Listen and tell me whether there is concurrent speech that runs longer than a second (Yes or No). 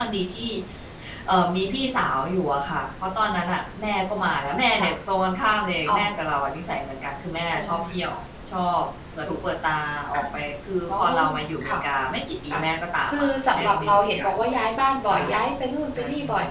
Yes